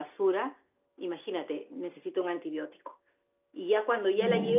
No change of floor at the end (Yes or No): Yes